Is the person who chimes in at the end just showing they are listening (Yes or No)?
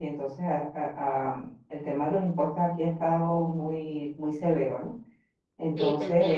Yes